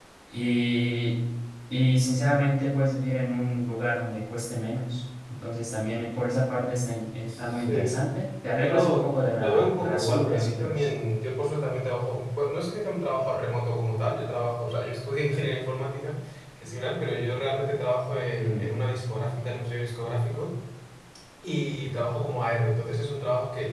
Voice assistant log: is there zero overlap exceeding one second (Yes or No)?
No